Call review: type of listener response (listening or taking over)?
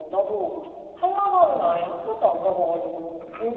taking over